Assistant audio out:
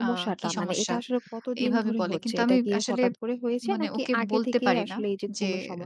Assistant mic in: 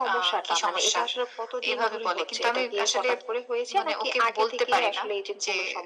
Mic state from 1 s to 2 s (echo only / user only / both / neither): echo only